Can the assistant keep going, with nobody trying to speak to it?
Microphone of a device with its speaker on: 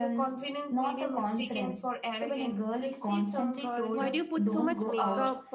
No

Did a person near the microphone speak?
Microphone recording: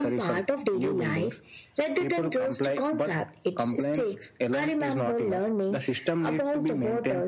No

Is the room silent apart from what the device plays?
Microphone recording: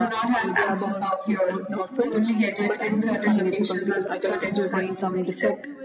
No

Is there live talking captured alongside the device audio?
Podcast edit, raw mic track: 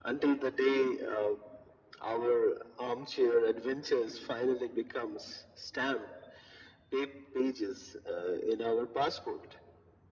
No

